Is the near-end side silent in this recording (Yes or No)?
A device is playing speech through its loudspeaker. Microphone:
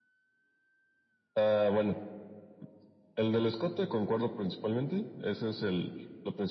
Yes